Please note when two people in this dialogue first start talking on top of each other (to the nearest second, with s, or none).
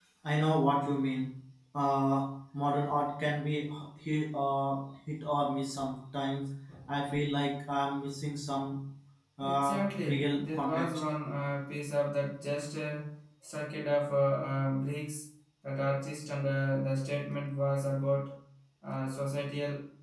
9 s